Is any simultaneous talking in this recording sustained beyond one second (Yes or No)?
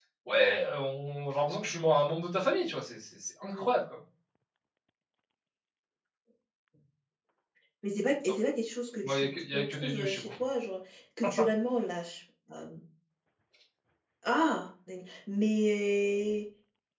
Yes